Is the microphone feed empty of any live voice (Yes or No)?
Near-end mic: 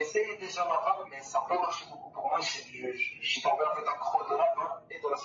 Yes